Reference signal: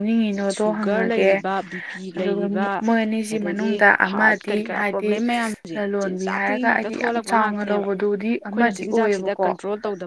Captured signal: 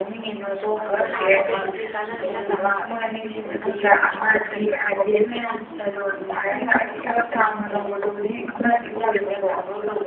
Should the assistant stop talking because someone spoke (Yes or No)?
Yes